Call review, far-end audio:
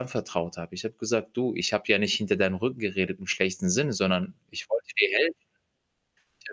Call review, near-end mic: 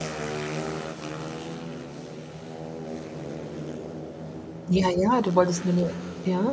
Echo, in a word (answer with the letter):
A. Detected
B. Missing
B